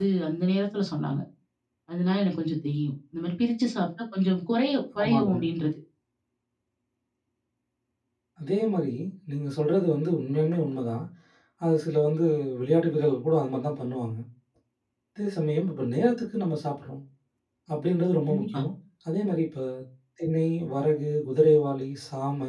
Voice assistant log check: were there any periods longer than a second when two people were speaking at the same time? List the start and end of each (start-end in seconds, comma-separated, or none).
none